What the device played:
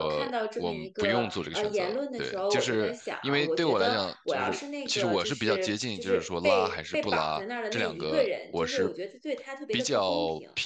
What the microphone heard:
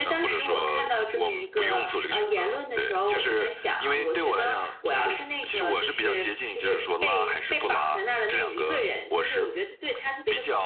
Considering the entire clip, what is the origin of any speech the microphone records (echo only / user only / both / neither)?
echo only